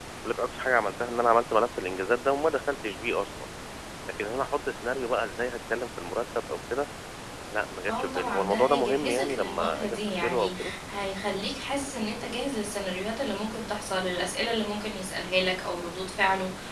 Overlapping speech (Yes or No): Yes